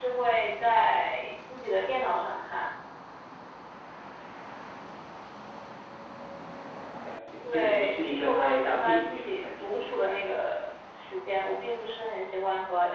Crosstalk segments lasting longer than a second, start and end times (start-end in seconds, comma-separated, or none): 7.4-10.0